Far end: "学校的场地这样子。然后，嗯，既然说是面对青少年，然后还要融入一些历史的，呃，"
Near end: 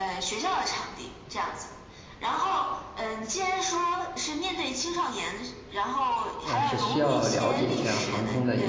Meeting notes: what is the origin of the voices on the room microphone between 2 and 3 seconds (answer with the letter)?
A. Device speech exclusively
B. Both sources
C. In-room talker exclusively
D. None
A